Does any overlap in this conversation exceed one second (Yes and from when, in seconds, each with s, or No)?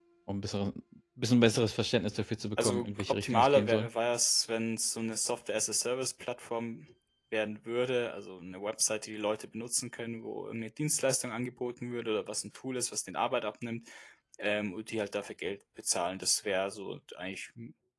Yes, from 2.6 s